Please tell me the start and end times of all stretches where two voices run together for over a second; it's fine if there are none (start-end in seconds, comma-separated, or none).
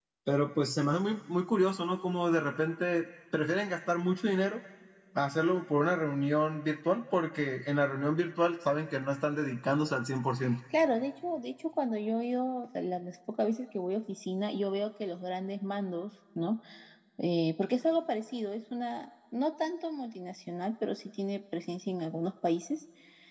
none